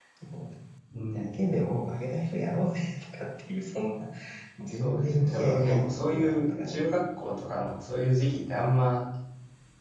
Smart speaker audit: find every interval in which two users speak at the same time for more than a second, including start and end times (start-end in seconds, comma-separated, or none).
4.7-6.9